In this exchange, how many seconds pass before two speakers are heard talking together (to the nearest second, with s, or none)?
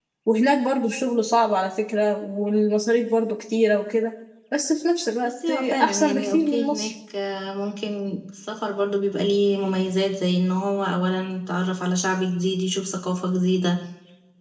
5 s